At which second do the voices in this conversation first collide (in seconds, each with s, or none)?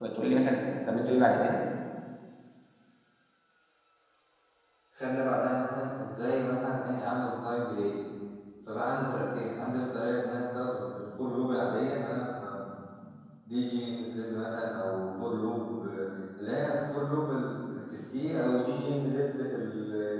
none